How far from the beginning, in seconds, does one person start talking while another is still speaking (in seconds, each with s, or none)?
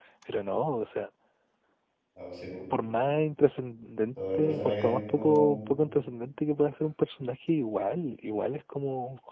4.2 s